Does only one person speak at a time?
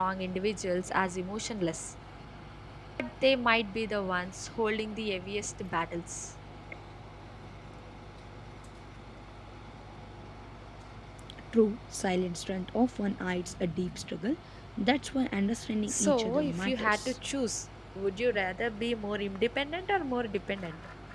No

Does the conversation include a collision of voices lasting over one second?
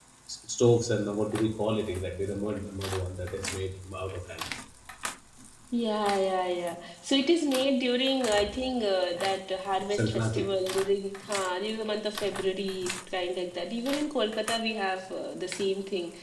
No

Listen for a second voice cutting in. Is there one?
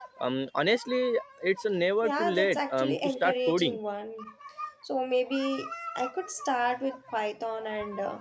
Yes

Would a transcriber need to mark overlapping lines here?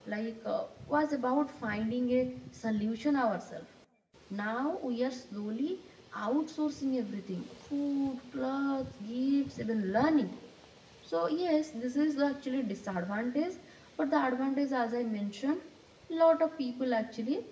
No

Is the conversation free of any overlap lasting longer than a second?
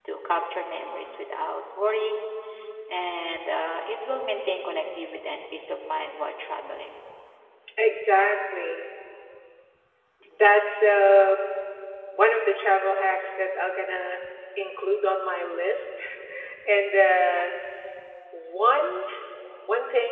Yes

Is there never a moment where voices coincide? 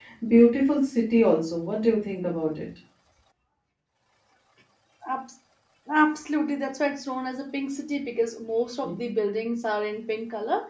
Yes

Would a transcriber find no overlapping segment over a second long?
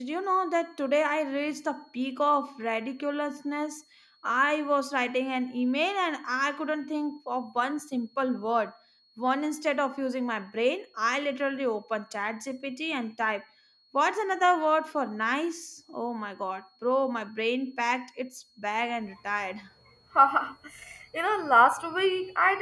Yes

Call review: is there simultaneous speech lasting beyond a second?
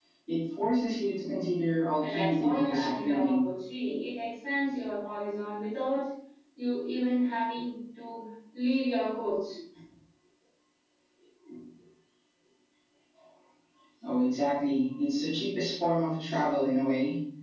Yes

